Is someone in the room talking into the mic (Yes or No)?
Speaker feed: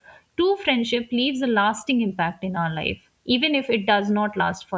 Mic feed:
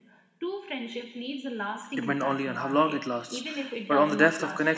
Yes